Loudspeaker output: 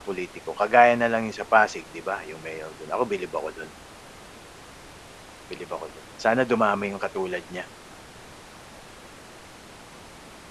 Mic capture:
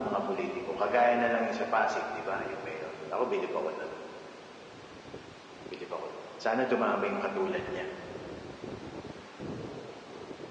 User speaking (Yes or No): No